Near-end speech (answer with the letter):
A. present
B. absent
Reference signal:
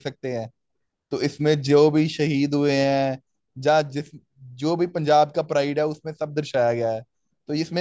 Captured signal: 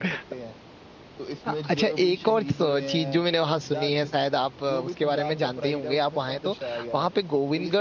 A